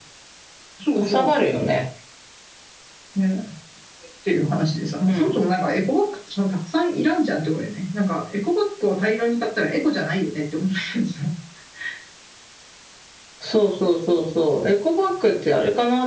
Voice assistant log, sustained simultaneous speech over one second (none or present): none